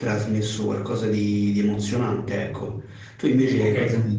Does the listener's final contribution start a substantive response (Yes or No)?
Yes